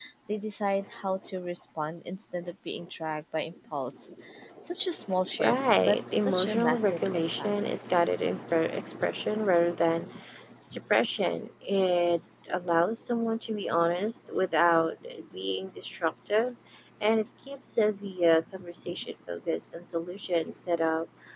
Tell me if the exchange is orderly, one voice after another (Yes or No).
No